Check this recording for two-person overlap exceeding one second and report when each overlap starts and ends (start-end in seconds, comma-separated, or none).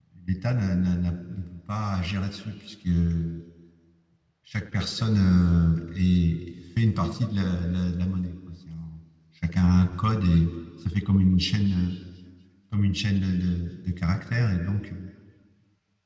none